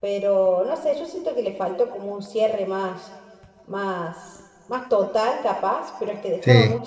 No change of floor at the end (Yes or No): Yes